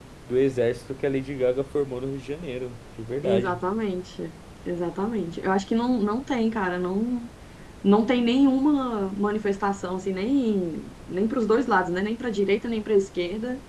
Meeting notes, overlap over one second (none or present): none